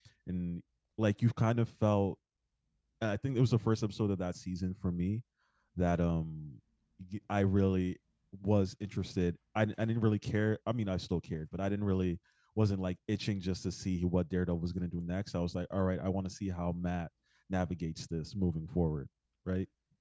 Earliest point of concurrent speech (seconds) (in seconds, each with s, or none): none